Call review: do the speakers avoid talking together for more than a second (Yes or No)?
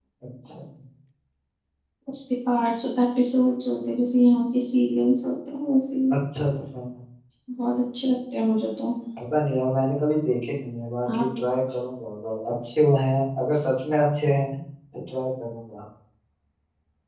Yes